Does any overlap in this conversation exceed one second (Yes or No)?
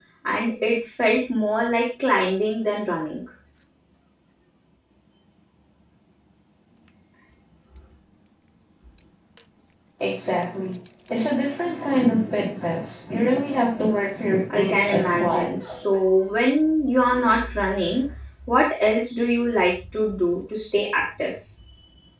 Yes